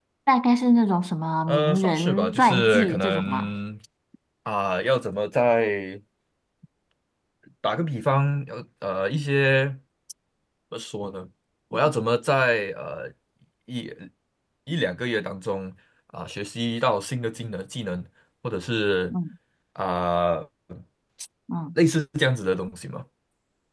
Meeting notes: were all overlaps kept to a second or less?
No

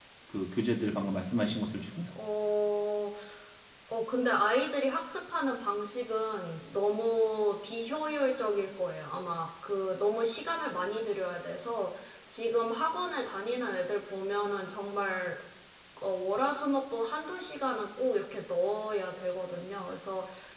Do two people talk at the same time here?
No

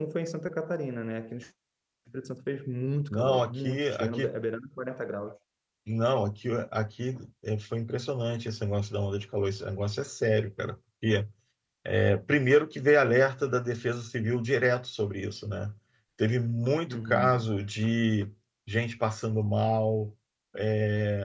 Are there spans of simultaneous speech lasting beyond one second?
Yes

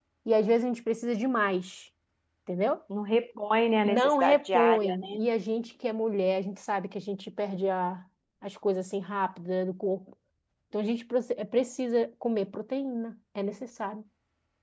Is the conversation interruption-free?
No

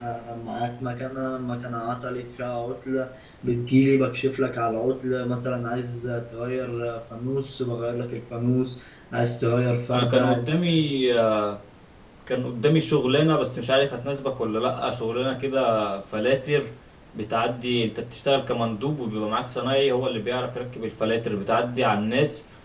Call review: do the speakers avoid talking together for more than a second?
Yes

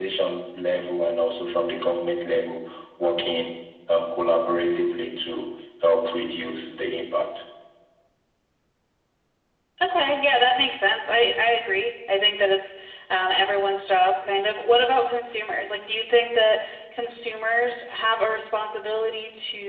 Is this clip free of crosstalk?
Yes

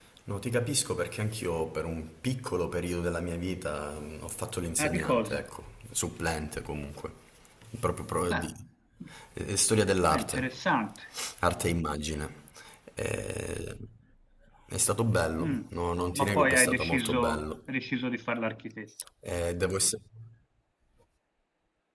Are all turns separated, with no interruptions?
No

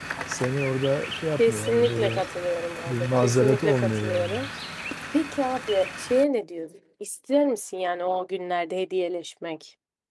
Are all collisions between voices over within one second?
No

